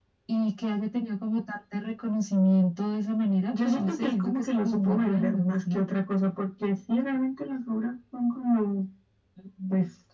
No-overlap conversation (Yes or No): No